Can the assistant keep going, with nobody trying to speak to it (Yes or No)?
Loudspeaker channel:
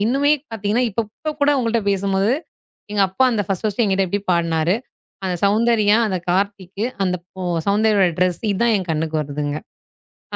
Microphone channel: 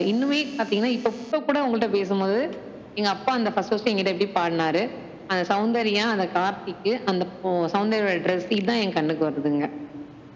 Yes